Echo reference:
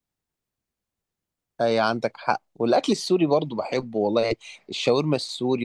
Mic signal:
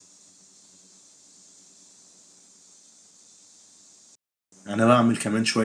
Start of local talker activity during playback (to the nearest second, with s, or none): 5 s